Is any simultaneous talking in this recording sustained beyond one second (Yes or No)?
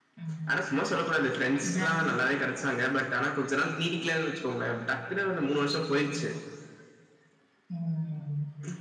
No